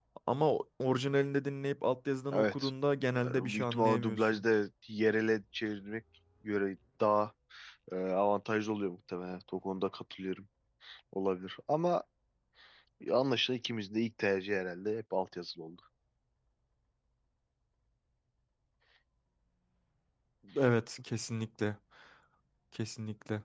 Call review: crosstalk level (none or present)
present